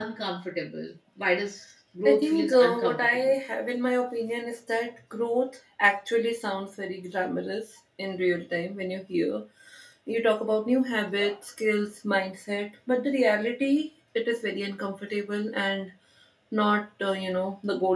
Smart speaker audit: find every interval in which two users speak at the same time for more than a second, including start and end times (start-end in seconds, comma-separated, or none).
2.0-3.3